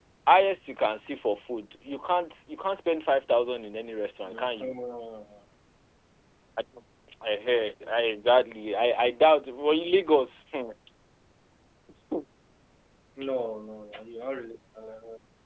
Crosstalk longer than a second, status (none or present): none